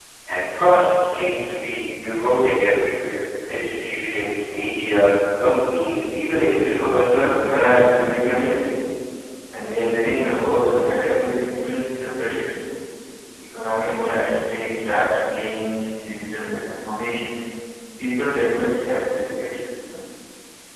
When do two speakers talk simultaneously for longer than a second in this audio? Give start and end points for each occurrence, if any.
6.6-7.8

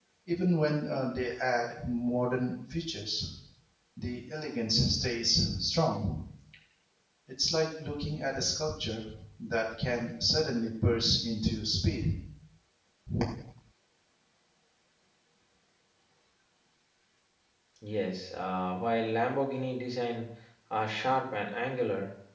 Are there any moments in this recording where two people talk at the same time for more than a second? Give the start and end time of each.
none

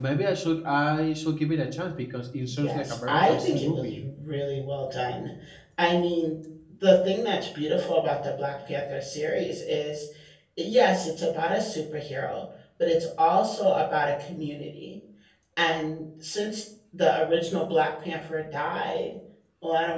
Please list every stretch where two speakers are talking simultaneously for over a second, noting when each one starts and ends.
2.5-4.0

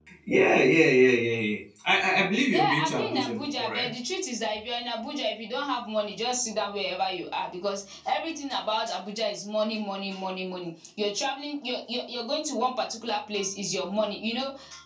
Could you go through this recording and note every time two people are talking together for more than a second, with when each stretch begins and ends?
2.5-3.9

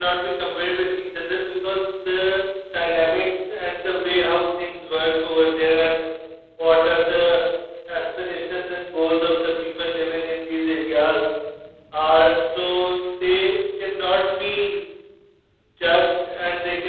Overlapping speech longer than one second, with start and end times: none

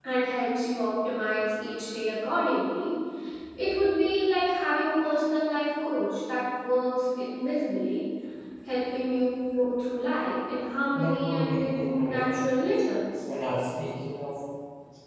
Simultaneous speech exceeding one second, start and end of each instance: 11.0-12.4

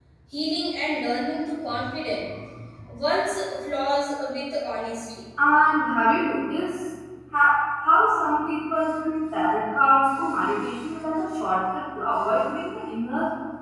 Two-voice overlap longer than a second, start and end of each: none

